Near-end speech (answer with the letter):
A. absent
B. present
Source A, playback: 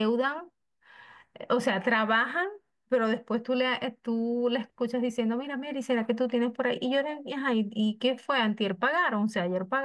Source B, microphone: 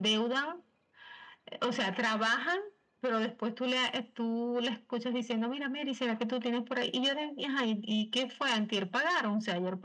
A